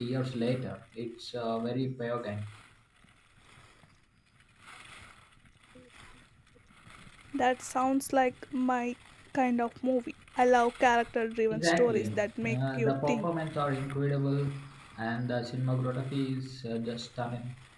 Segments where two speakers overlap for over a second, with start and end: 11.5-13.3

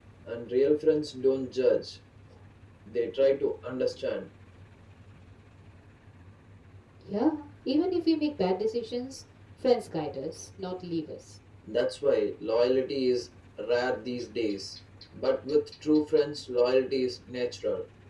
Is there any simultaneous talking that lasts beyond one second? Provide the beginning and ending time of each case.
none

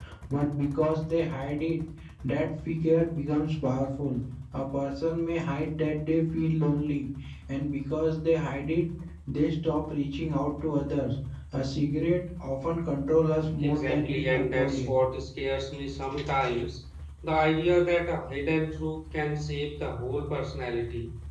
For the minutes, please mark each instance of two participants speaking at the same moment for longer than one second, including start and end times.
13.6-14.9

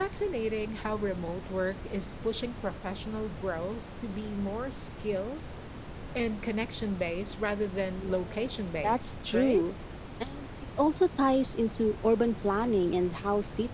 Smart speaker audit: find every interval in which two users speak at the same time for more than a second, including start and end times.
8.0-9.6

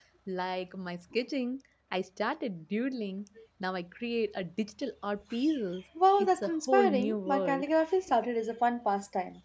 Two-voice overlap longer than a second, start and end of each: 6.2-7.7

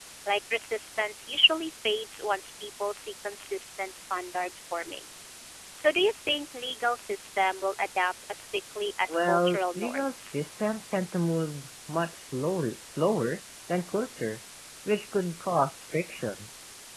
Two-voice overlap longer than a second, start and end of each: 9.1-10.3

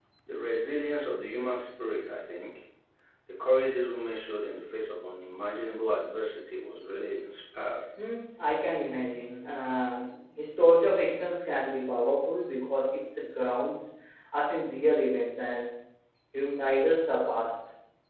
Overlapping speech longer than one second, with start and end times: none

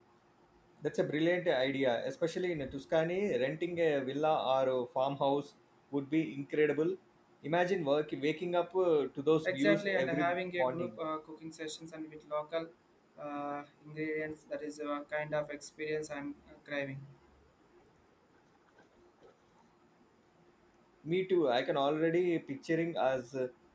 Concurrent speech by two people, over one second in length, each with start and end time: 9.4-11.0

